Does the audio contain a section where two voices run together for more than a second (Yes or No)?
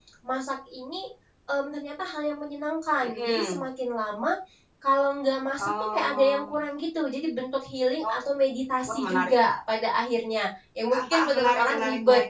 Yes